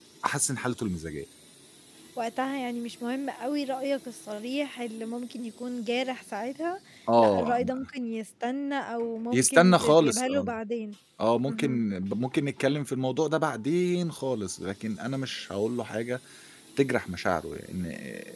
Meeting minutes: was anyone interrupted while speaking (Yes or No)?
Yes